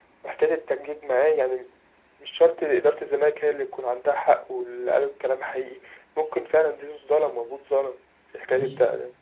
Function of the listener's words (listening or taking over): taking over